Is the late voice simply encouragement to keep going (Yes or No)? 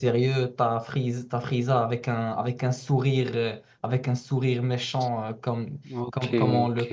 Yes